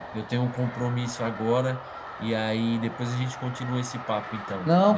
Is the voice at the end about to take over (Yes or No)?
Yes